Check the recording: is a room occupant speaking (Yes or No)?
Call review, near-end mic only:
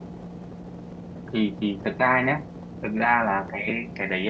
Yes